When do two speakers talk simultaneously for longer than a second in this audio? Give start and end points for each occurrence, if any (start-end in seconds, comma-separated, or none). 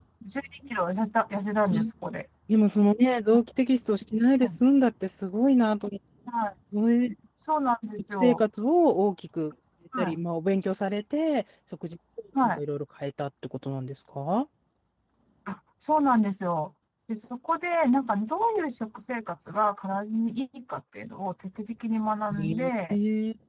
none